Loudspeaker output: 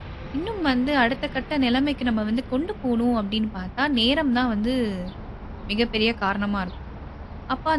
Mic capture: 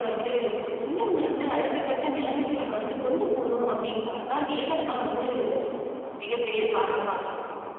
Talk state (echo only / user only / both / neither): echo only